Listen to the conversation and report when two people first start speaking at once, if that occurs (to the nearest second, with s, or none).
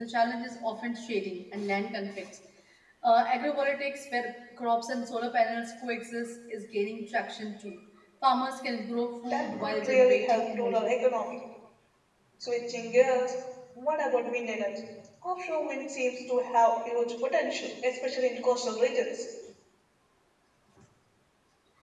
9 s